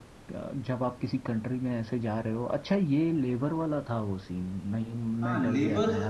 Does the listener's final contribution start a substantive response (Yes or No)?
Yes